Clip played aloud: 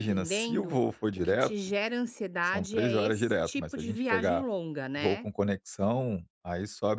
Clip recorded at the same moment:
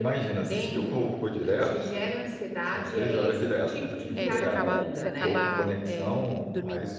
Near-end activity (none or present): present